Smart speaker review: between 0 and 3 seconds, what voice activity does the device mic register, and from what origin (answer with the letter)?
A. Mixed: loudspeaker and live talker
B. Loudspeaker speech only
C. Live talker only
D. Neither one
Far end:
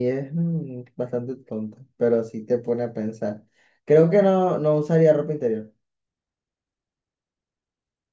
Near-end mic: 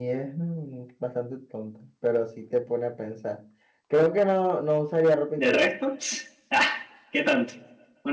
B